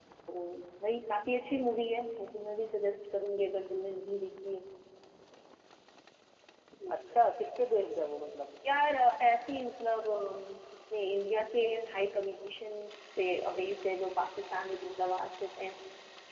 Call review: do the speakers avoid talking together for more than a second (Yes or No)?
Yes